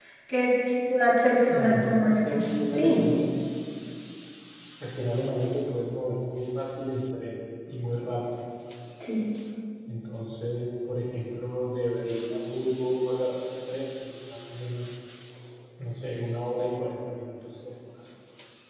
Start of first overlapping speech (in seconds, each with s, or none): 1.5 s